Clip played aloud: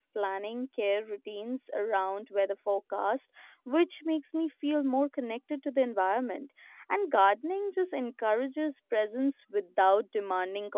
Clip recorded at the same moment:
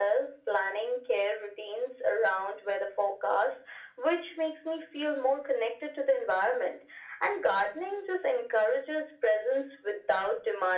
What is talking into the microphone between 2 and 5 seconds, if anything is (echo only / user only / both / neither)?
echo only